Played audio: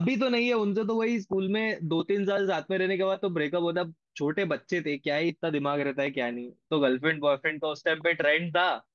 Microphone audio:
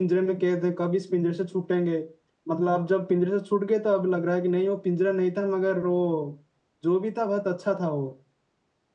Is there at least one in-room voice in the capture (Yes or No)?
Yes